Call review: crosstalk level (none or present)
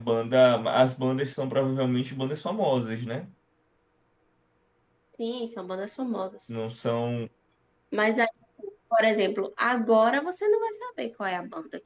none